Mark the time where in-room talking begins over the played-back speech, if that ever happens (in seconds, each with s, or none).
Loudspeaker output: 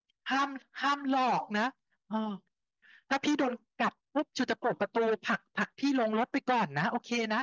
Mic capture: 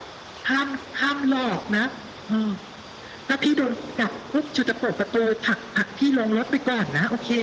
none